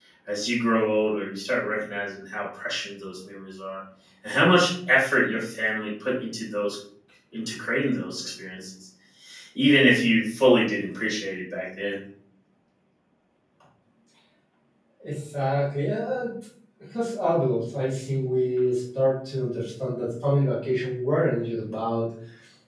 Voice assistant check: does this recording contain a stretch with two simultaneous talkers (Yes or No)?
No